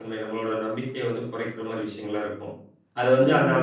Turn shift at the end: No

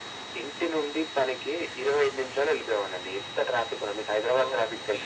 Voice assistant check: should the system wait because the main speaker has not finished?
No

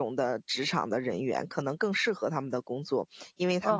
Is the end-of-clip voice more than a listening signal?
Yes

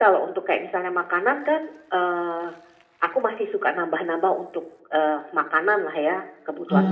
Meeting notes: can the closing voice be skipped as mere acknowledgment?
No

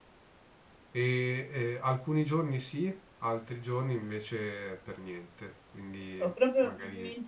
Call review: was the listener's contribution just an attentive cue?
No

